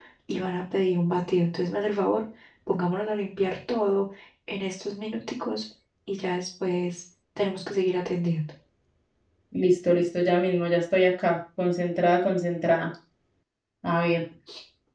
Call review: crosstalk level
none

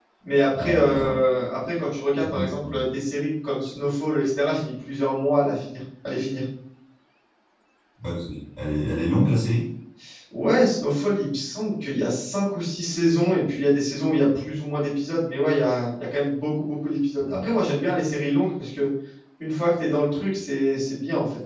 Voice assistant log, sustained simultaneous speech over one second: none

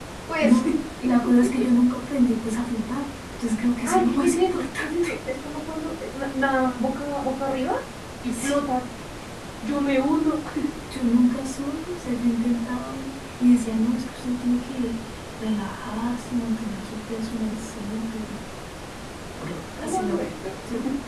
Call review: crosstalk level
present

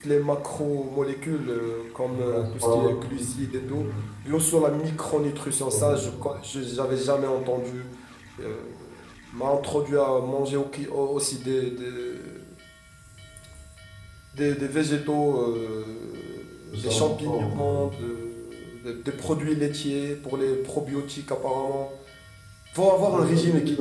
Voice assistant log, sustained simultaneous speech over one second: present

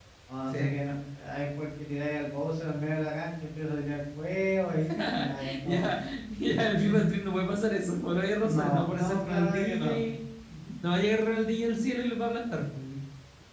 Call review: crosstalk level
present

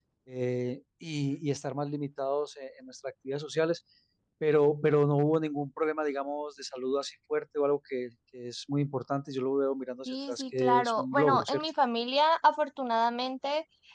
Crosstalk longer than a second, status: present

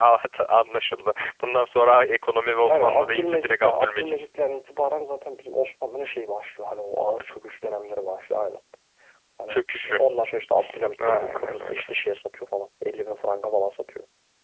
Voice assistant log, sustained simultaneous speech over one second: present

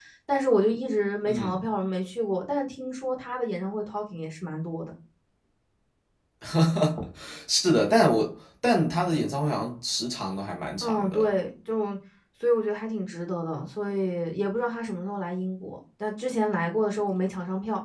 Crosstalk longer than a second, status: none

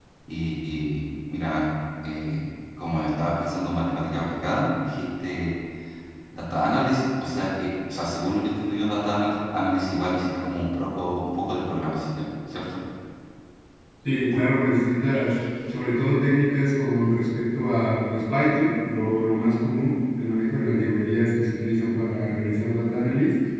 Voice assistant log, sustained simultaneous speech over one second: none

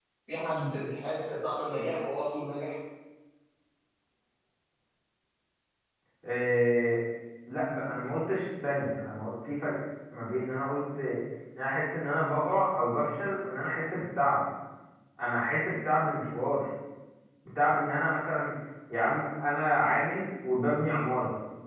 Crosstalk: none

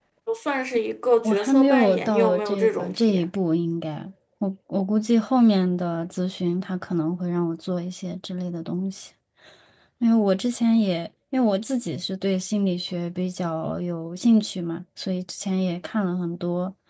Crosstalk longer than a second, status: present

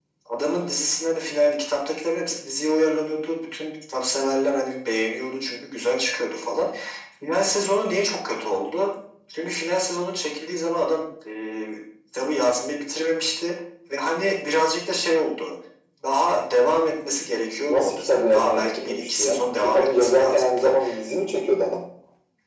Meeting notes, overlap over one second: present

